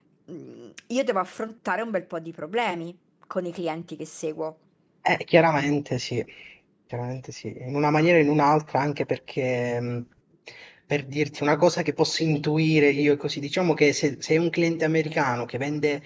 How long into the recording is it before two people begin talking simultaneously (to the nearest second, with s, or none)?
none